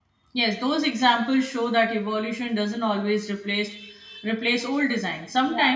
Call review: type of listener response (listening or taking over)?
listening